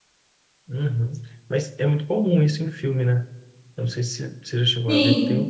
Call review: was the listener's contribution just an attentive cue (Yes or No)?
Yes